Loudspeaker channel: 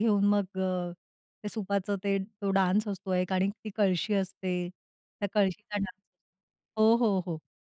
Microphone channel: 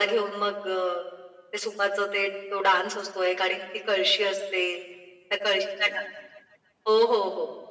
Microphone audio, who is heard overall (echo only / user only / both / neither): echo only